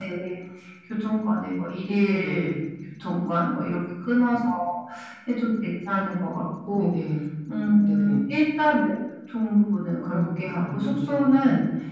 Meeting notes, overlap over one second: present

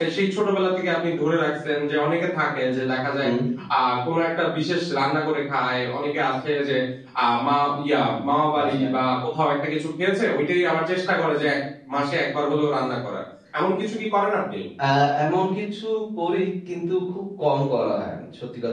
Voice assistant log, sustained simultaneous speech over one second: none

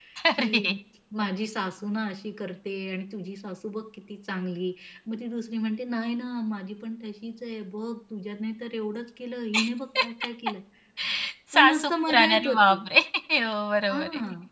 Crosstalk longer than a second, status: present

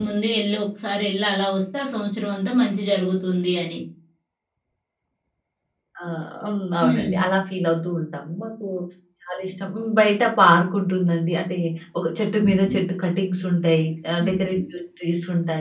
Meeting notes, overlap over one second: none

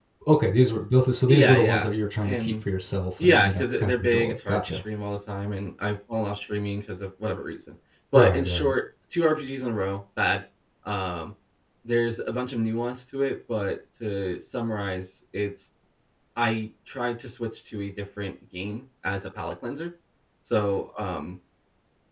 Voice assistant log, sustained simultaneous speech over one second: present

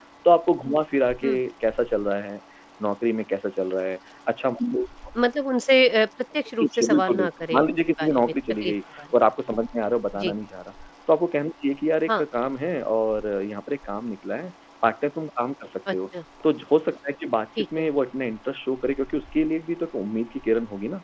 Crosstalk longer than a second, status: present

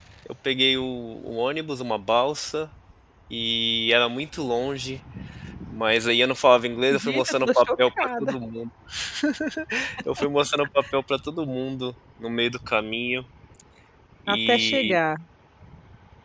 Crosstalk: present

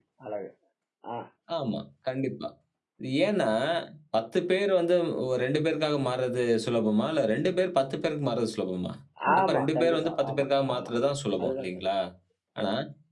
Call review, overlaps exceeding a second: present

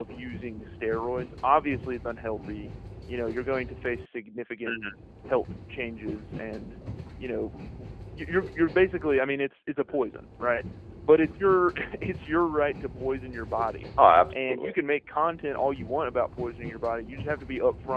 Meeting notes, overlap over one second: none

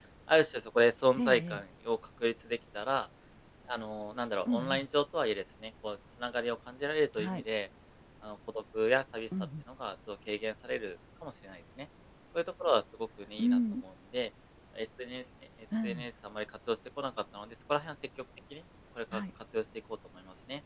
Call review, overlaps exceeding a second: none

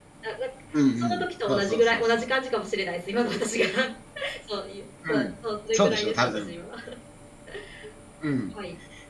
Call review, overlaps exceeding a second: present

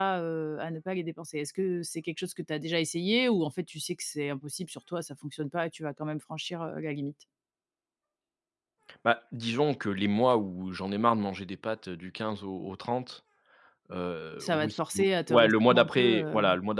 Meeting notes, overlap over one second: present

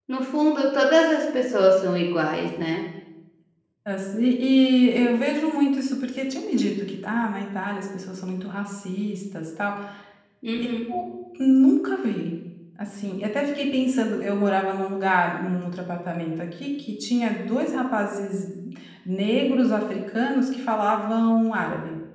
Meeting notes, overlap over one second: none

